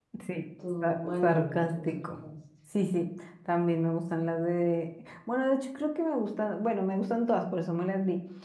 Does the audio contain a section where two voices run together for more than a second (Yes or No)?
Yes